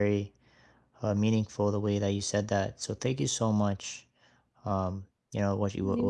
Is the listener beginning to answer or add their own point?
No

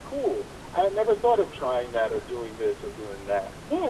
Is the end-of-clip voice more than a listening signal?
Yes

